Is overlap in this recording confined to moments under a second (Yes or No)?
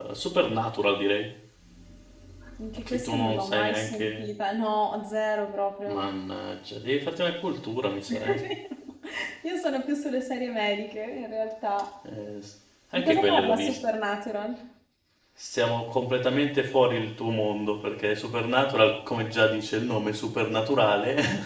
No